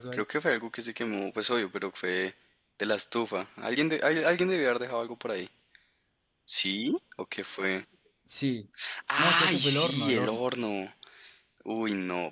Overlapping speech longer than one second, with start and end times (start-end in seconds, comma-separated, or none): 9.2-10.4